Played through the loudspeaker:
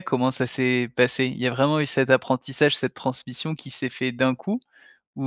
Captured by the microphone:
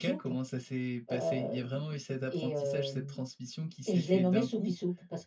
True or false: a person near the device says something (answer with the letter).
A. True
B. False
A